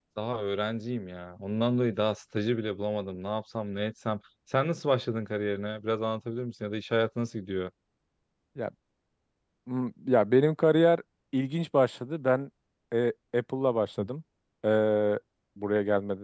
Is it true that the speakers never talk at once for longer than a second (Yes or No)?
Yes